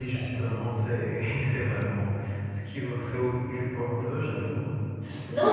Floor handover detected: Yes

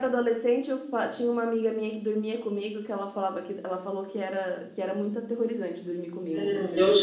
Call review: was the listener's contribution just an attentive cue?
No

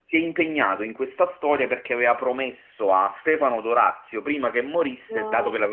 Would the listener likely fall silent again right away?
Yes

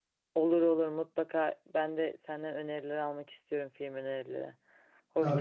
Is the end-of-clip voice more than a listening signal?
Yes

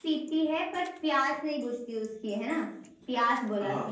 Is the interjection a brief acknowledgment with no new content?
Yes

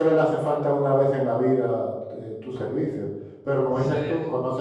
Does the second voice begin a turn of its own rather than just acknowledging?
No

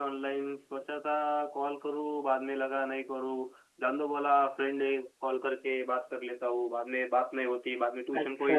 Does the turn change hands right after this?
Yes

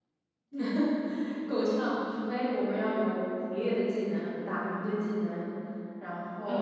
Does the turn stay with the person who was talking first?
No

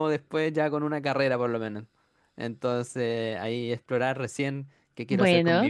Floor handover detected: No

